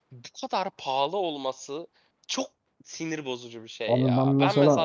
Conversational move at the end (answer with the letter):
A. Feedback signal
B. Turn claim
B